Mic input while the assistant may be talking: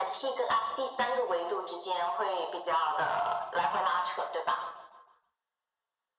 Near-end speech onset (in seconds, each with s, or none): none